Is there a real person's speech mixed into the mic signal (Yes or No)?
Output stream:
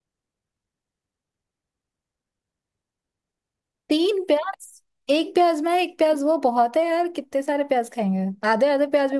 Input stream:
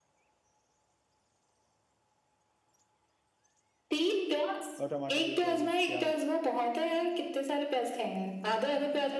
Yes